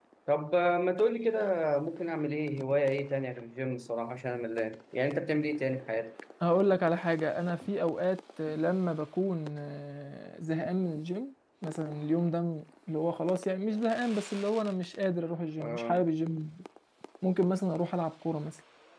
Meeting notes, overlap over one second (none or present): none